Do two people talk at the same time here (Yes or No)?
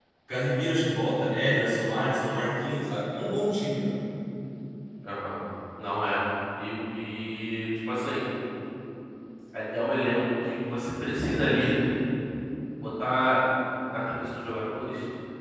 No